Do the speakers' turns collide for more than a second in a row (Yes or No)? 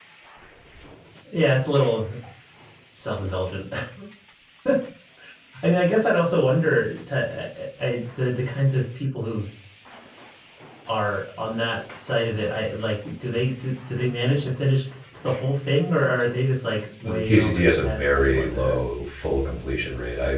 Yes